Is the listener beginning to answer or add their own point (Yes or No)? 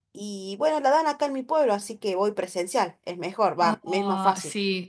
Yes